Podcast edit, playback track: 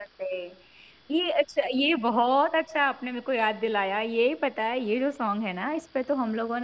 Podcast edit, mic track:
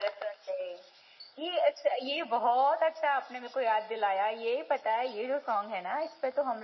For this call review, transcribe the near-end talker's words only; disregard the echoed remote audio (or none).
none